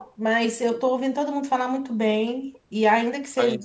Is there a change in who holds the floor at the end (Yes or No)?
No